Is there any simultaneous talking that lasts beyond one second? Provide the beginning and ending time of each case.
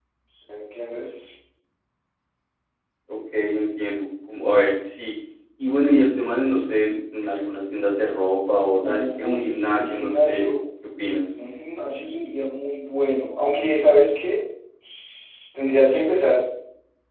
8.8-10.5

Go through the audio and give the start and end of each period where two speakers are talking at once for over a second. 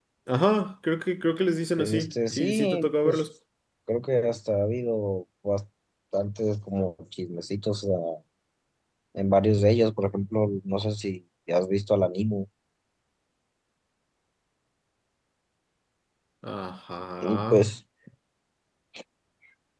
1.8-3.2

